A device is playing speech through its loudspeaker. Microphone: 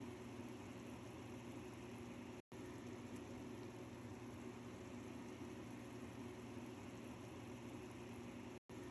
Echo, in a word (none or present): none